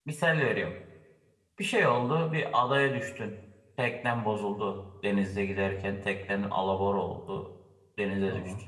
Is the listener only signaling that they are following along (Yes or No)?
Yes